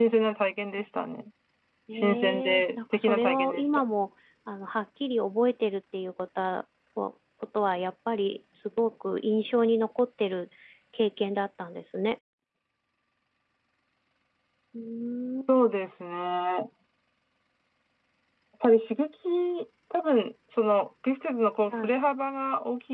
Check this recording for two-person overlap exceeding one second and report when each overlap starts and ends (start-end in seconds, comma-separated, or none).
1.9-3.7